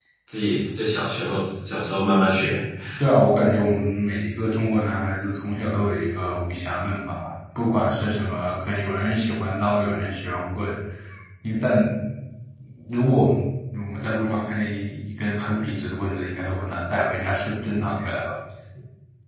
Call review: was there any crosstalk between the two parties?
No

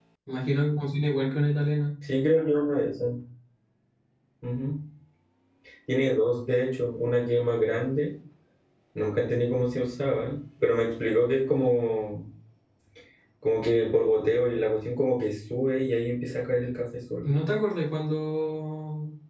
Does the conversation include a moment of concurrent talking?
No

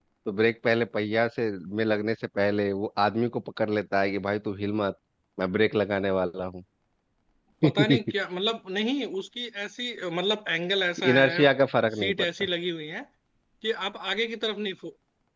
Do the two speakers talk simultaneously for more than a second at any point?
No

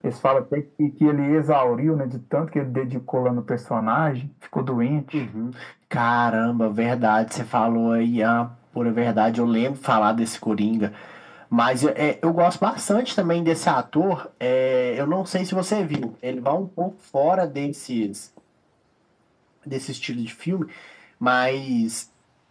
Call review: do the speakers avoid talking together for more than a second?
Yes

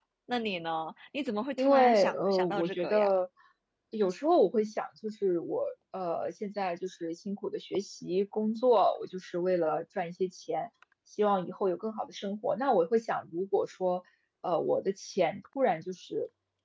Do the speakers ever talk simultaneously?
Yes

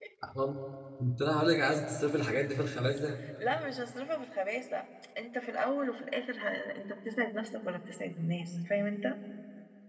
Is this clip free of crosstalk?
Yes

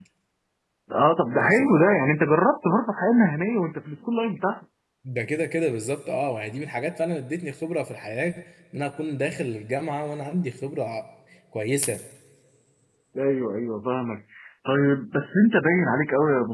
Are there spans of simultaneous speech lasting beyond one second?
No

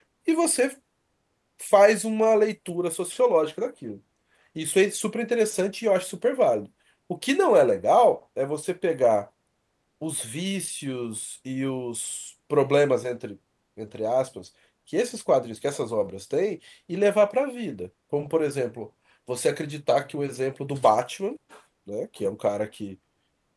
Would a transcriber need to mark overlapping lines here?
No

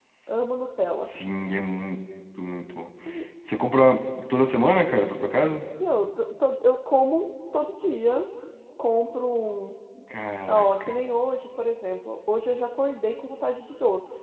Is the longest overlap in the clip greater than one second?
No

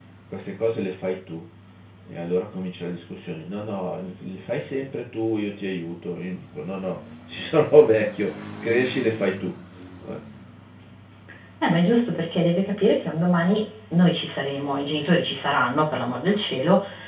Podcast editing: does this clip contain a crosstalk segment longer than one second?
No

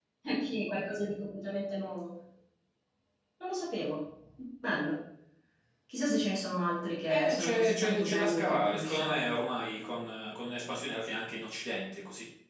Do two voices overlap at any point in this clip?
Yes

